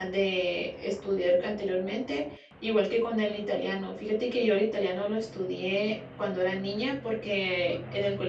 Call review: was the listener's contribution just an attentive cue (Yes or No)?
Yes